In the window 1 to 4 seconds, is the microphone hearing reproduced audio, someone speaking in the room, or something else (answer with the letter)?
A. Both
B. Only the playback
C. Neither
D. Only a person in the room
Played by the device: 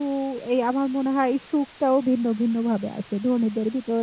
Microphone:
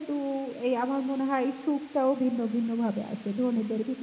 B